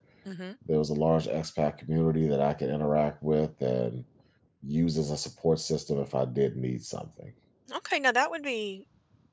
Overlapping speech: No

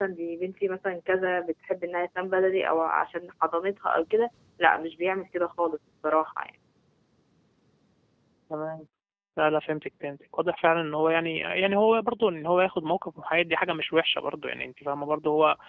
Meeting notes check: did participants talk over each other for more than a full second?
No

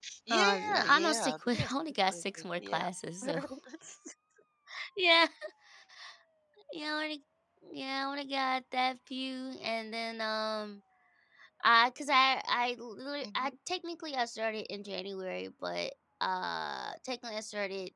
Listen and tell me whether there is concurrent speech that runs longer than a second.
Yes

